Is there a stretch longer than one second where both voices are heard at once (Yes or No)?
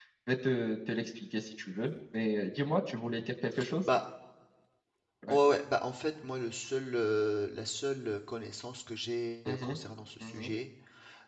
No